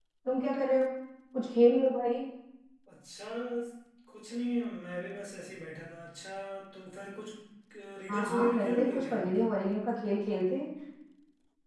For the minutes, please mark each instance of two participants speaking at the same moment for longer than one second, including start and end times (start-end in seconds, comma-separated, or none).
8.1-9.3